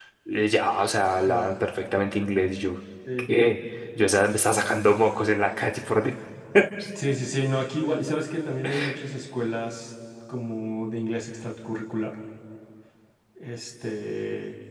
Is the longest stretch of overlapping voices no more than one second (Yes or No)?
Yes